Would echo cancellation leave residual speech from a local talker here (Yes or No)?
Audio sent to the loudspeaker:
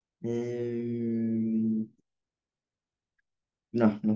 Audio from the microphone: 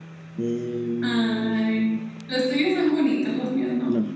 Yes